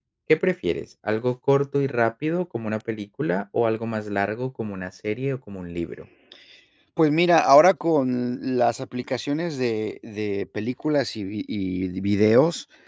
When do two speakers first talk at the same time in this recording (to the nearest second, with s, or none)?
none